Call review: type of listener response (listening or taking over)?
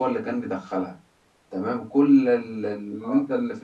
listening